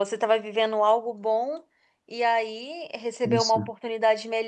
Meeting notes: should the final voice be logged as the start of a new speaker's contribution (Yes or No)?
No